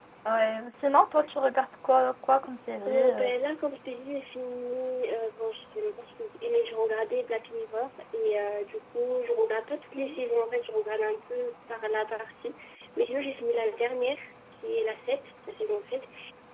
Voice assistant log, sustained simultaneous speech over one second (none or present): none